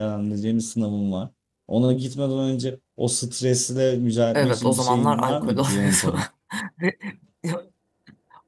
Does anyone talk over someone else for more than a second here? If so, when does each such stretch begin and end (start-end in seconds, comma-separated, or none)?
4.3-6.2